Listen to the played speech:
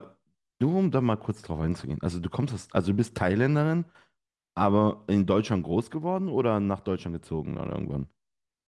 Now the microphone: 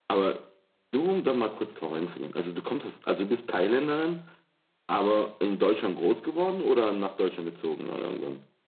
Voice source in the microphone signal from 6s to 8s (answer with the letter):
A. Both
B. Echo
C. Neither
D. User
B